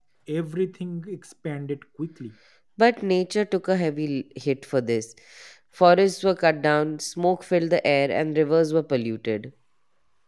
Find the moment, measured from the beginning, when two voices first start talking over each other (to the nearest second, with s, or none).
none